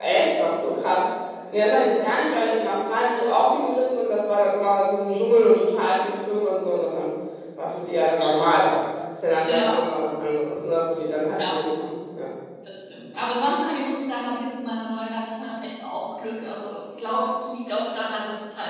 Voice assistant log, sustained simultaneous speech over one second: none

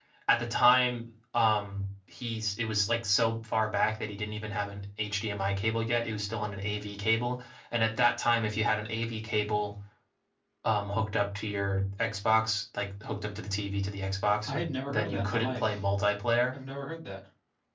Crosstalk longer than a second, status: present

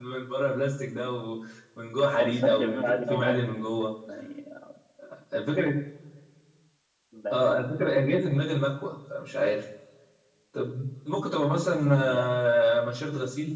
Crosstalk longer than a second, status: present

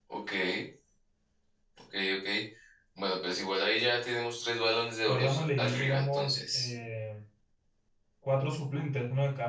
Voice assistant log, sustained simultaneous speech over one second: present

